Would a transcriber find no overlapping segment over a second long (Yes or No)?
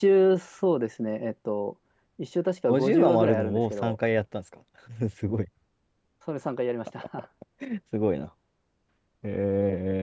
No